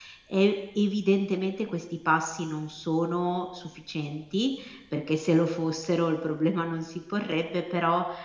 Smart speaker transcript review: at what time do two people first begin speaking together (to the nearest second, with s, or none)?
none